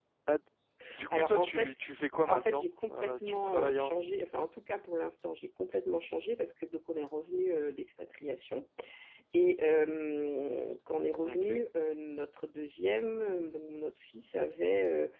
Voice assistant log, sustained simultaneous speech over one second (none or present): present